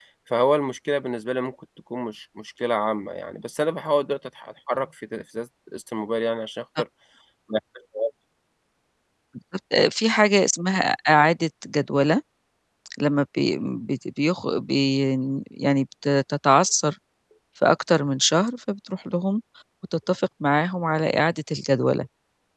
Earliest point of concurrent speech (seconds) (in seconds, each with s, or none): none